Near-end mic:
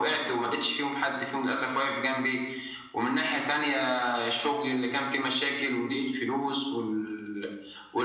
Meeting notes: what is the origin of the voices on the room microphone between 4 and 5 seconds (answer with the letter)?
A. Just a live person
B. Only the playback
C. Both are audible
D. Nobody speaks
B